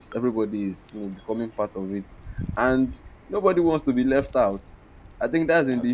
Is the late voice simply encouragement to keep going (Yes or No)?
Yes